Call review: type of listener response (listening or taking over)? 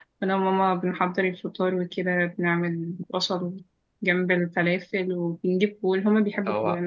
listening